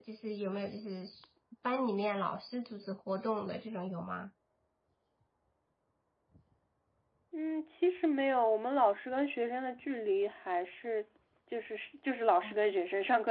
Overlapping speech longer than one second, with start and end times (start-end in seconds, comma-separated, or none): none